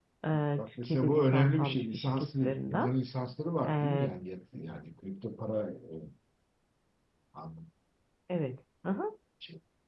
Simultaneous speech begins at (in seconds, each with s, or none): 0.6 s